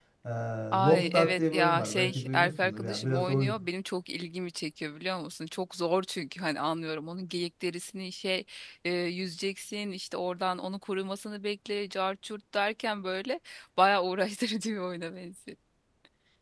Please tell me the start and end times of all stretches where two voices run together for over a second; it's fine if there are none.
0.8-3.5

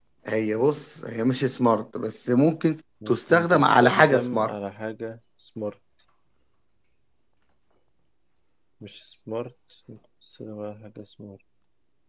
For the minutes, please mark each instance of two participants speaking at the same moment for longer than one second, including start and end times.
3.1-4.5

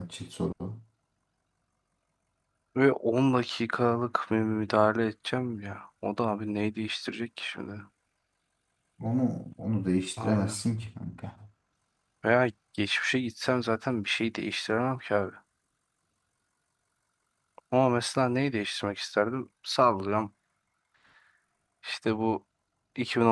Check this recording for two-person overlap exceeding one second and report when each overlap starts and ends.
none

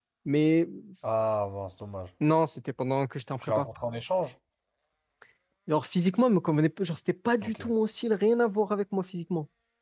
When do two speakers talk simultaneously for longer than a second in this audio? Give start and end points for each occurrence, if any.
none

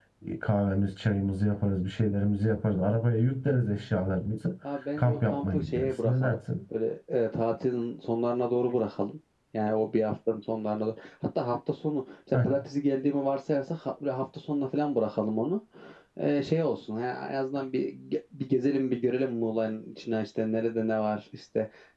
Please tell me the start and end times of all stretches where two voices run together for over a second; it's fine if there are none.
5.0-6.4

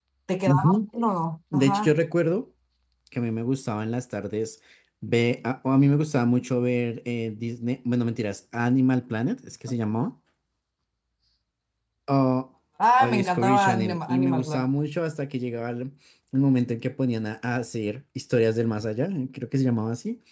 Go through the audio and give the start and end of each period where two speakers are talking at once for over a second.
13.0-14.6

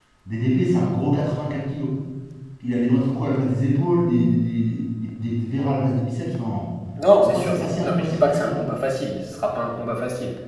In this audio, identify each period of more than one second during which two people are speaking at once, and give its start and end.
7.2-8.6

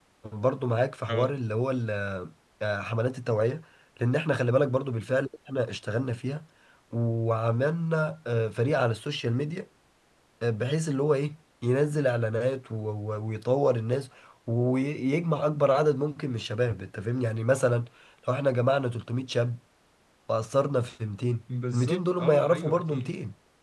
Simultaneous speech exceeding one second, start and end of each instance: 21.7-23.1

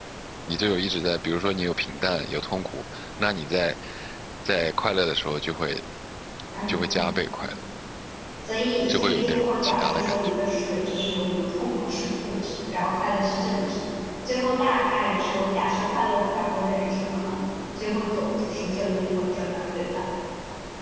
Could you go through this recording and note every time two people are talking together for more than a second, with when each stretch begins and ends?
8.9-10.3

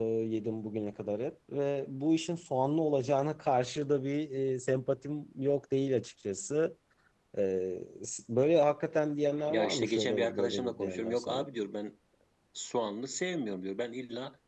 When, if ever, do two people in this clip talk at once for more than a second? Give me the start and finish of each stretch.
9.5-11.5

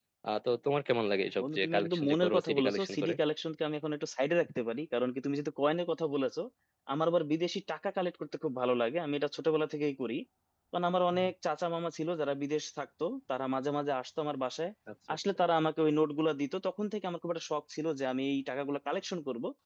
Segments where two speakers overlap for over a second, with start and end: 1.4-3.1

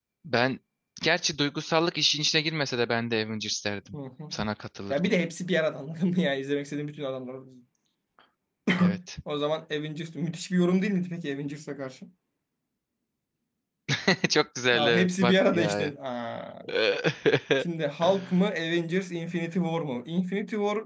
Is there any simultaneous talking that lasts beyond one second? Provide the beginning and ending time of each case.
14.7-15.9

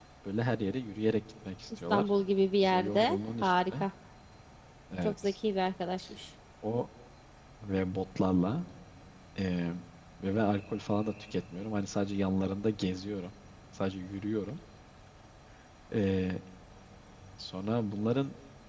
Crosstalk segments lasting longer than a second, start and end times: 2.6-3.9

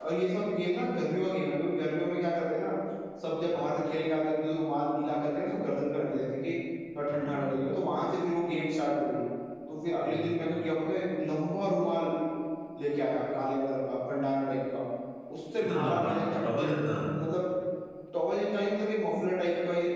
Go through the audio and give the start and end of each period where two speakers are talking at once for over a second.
none

